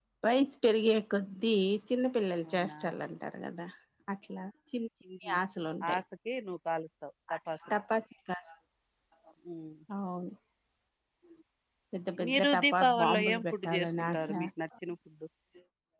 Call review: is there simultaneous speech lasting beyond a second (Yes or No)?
Yes